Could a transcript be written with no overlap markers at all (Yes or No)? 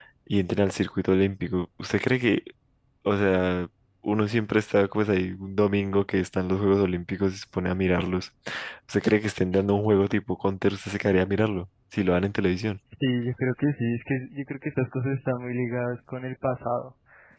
Yes